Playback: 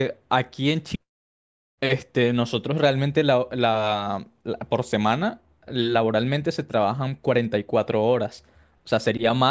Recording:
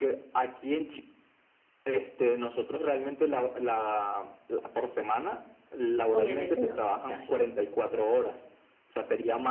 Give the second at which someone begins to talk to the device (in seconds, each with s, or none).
6.1 s